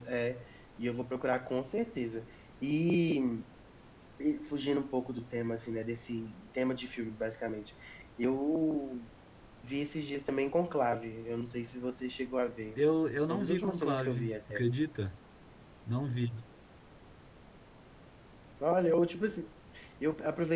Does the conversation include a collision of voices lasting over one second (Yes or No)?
Yes